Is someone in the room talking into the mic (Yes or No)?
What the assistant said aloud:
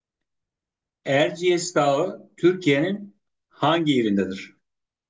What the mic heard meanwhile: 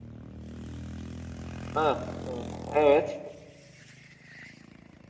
Yes